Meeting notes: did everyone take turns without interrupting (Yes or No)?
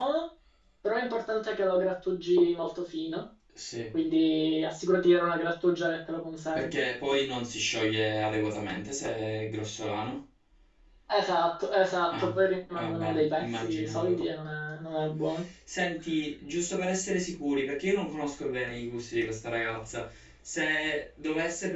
No